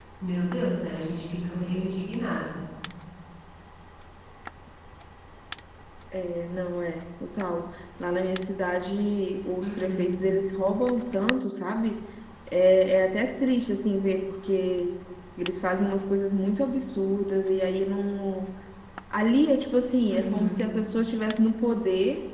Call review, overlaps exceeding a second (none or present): none